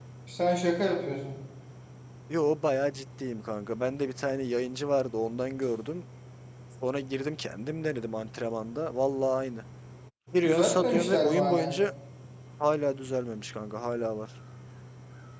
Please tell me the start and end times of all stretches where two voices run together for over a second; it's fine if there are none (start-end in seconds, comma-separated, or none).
10.4-11.7